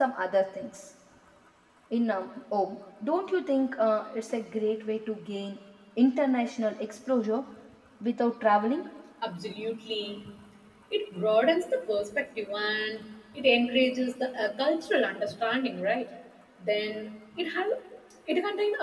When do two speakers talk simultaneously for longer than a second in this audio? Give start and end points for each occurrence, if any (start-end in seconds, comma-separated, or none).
none